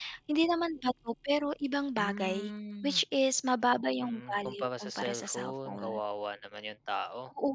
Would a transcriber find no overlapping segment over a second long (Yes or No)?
No